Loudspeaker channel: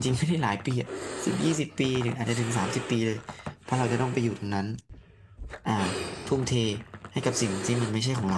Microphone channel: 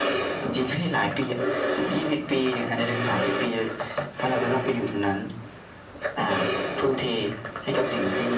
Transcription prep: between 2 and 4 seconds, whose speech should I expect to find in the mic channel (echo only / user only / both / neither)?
echo only